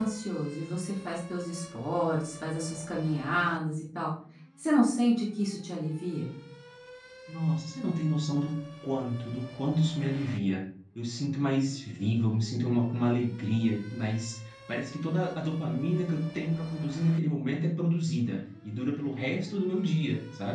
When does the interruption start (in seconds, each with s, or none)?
none